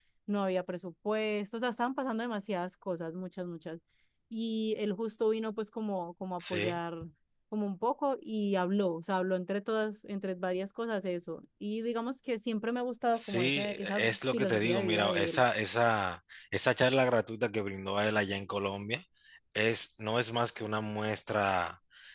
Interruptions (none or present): present